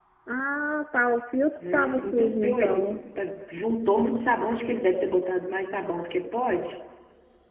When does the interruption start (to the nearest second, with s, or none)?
2 s